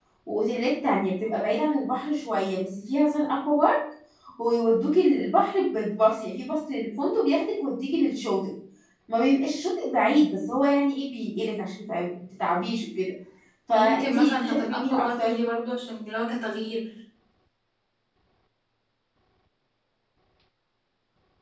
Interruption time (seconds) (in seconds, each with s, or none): 13.7 s